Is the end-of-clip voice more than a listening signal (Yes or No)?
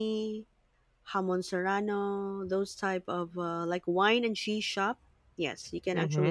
No